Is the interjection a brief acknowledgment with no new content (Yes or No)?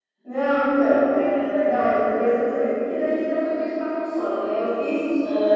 Yes